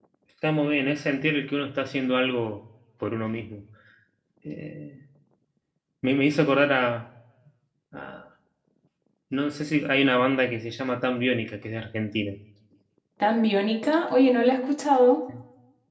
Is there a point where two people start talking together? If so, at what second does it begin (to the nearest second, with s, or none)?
none